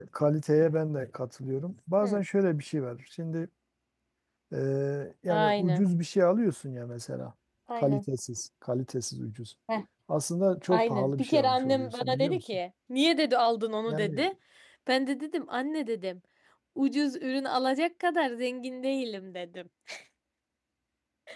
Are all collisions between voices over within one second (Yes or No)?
No